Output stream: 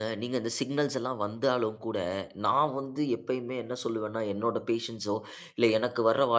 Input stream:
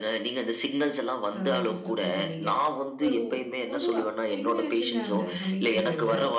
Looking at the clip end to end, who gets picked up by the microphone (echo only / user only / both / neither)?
both